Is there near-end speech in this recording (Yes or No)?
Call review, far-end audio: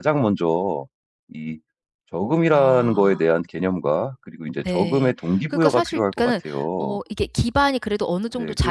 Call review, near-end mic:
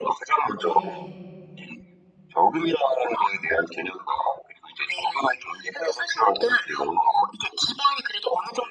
Yes